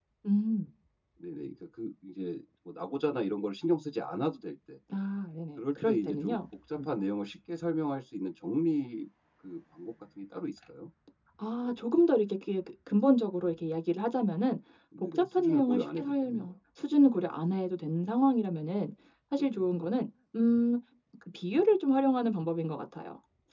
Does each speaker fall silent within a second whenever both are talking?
No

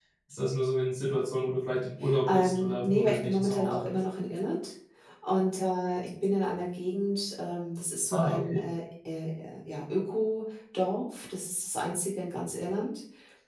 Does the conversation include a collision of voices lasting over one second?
Yes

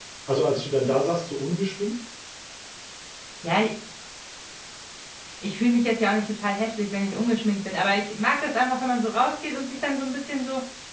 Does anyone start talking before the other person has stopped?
No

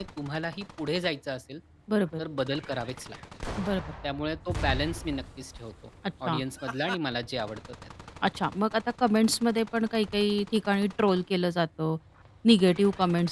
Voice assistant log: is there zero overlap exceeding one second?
Yes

